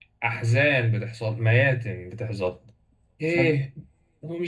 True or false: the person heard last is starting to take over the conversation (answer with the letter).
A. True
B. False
B